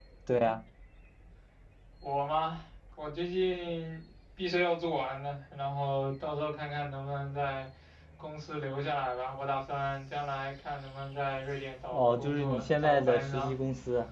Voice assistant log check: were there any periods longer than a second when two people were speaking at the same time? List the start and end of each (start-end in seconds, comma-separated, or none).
11.9-13.5